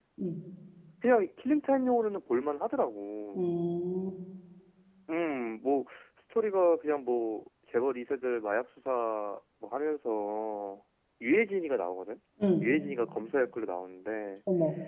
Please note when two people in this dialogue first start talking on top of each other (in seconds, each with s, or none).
none